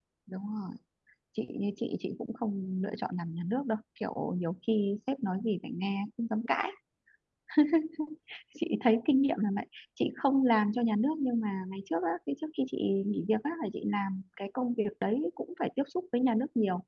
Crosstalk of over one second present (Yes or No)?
No